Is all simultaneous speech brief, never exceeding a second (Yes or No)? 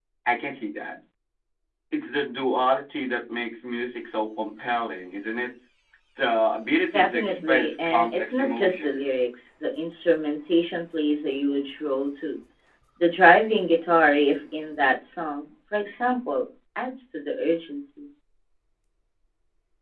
No